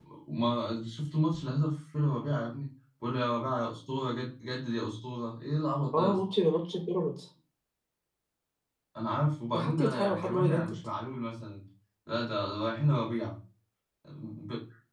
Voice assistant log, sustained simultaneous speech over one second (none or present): present